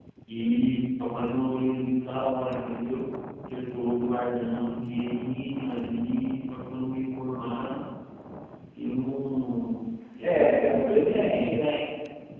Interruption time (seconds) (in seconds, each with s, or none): 10.2 s